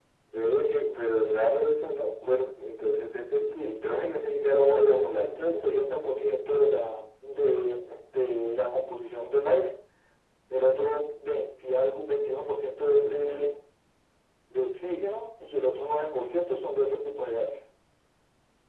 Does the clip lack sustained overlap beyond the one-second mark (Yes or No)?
No